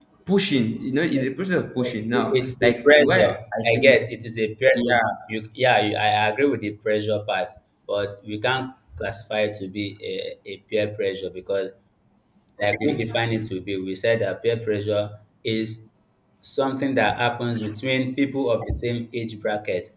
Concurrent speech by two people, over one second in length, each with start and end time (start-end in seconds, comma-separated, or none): 2.4-3.9